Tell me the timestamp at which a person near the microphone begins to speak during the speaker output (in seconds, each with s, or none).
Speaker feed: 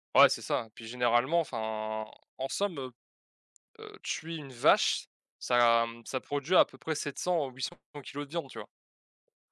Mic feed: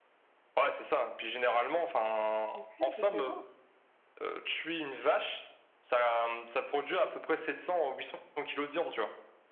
2.5 s